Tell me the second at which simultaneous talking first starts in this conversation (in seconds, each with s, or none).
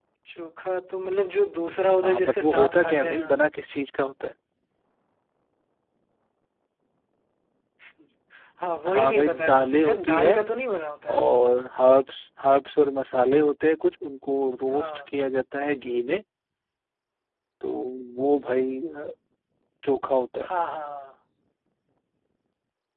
2.0 s